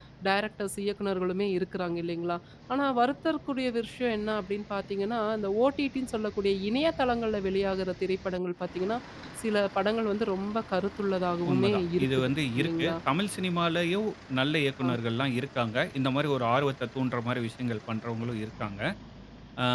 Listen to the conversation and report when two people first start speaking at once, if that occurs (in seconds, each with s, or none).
11.4 s